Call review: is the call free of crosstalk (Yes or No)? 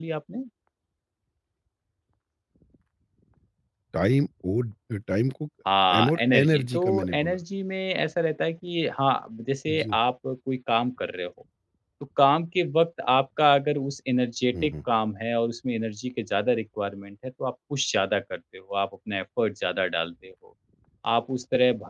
No